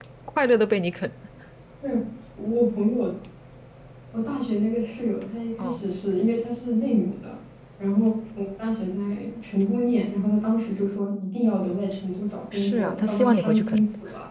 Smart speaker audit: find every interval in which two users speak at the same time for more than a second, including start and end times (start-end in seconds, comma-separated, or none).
12.5-13.8